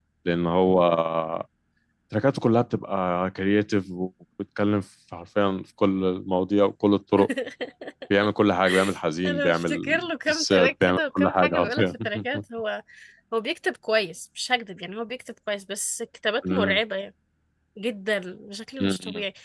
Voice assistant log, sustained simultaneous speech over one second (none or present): present